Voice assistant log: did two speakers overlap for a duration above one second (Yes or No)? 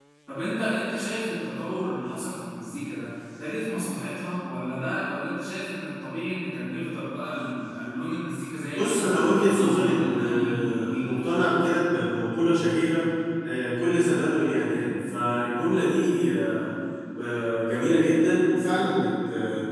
Yes